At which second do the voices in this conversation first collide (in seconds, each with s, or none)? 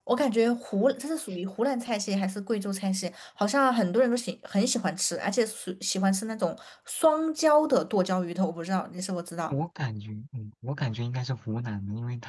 none